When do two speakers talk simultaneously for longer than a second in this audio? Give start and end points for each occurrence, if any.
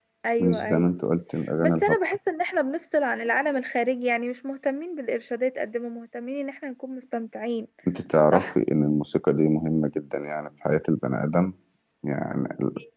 none

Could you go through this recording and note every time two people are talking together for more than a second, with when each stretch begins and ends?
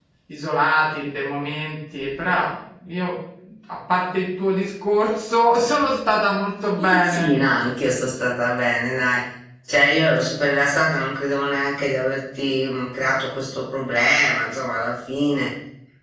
none

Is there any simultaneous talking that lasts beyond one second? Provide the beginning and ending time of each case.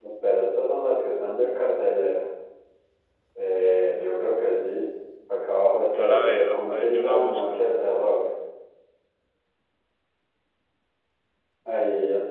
5.9-7.6

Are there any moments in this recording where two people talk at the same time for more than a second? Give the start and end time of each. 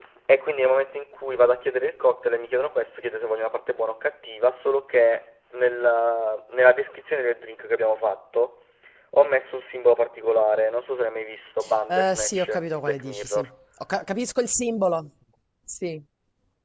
11.9-13.4

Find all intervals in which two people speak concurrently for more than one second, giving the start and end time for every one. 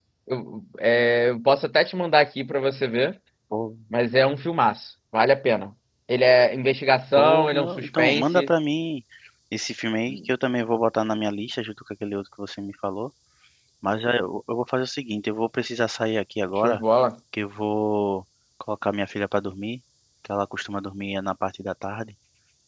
7.2-8.5

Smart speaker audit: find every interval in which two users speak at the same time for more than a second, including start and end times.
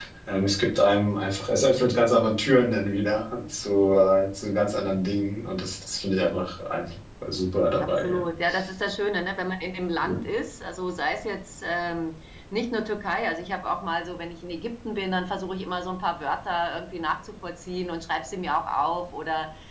none

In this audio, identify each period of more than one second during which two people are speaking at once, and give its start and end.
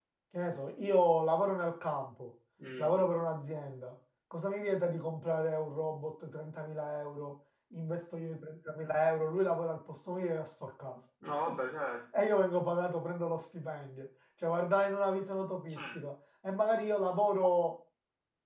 none

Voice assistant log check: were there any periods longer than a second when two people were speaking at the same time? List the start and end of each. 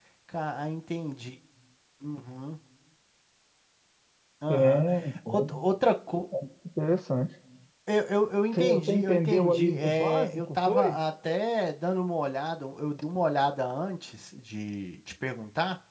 8.5-11.0

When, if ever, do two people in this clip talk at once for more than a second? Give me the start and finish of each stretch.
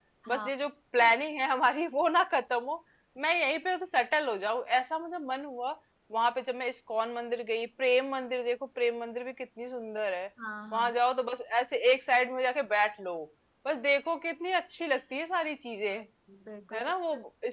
none

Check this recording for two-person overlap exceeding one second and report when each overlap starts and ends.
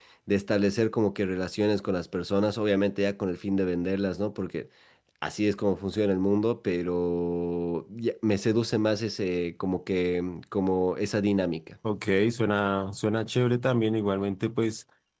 none

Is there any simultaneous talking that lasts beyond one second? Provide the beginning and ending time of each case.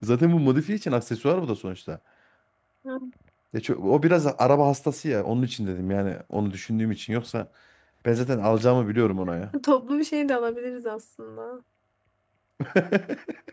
none

